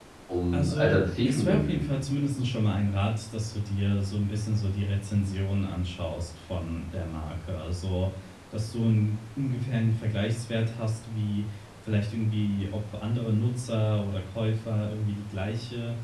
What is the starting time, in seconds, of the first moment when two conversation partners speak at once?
1 s

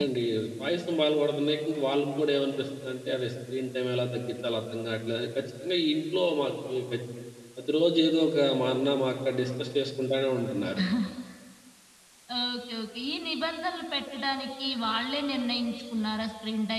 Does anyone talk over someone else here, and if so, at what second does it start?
none

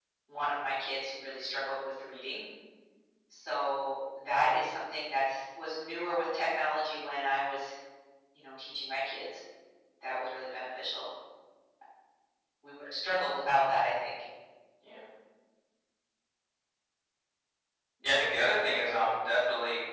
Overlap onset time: none

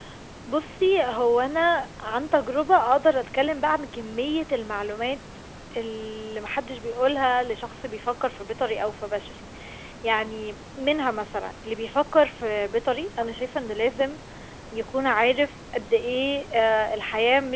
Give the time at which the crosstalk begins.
none

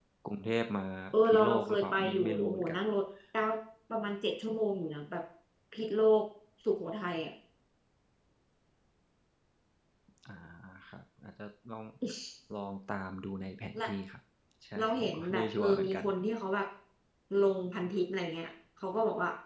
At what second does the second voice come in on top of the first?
1 s

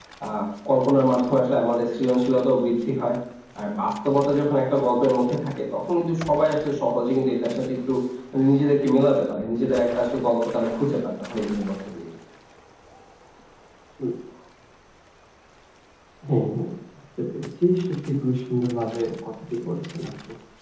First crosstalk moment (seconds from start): none

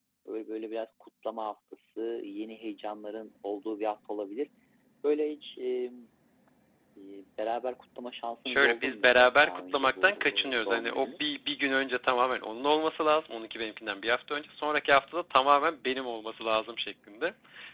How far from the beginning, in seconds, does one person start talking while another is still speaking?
8 s

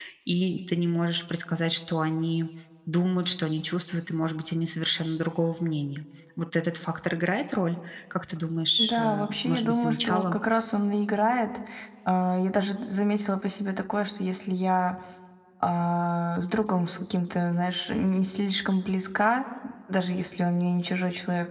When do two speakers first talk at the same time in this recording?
9 s

